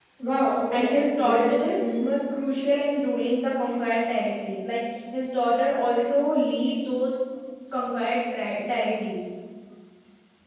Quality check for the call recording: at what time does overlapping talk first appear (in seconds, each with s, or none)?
0.7 s